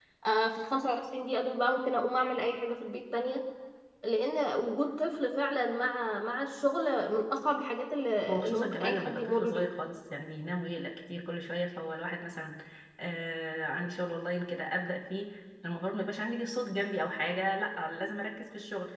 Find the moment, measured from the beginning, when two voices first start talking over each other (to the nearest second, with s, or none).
8 s